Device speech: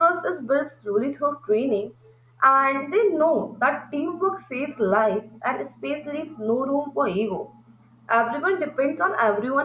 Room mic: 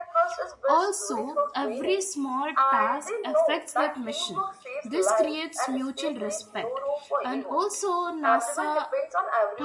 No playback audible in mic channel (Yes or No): No